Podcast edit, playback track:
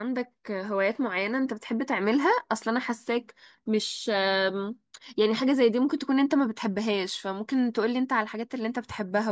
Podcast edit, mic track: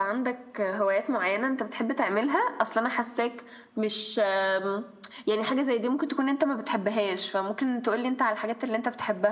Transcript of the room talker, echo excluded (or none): none